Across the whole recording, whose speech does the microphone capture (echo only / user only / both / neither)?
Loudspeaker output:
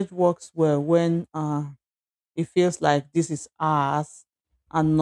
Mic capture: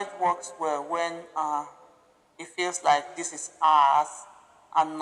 echo only